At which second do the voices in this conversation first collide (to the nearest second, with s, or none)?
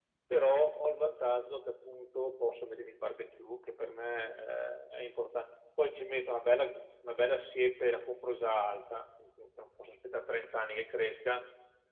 none